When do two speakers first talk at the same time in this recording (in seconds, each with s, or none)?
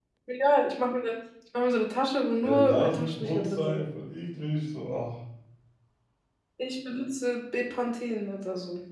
2.4 s